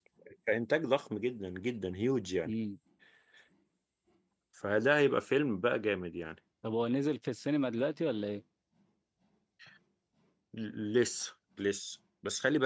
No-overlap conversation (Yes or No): Yes